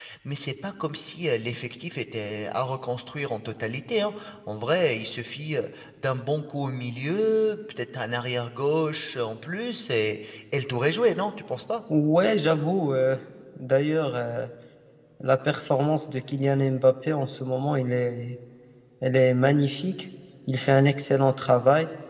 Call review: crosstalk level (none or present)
none